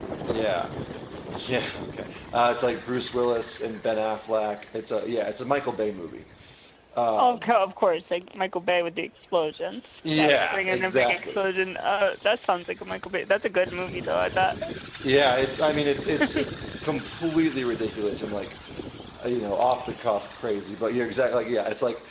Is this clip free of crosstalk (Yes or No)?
No